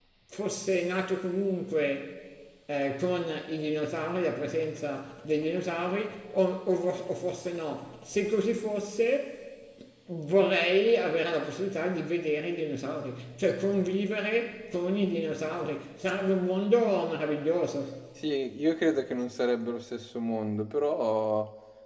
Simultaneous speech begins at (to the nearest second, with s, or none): none